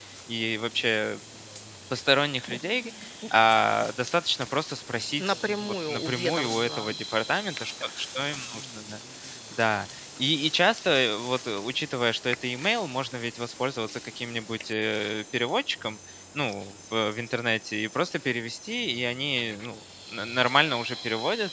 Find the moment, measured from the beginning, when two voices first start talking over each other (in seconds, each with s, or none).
5.2 s